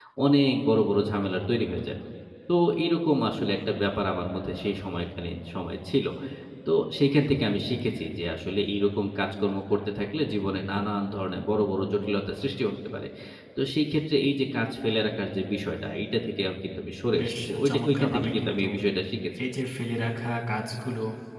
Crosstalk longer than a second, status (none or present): present